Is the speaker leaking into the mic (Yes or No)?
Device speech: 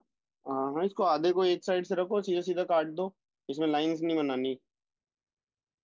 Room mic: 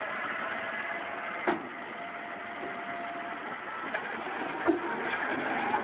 No